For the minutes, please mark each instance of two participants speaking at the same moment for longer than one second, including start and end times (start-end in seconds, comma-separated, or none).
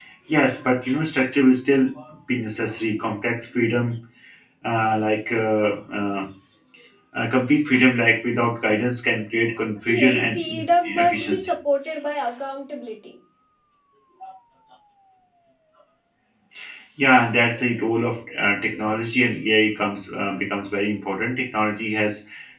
9.8-11.5